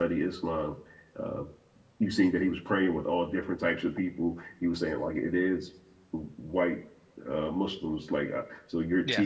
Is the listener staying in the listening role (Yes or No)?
Yes